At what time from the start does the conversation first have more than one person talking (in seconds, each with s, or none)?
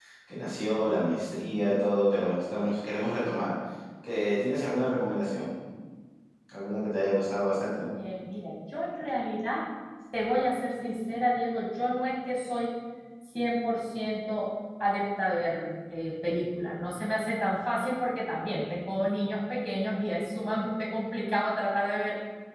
none